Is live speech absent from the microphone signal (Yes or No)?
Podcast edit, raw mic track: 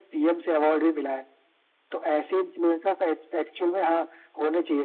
Yes